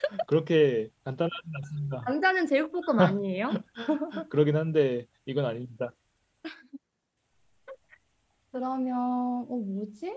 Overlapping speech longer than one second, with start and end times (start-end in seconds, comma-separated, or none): none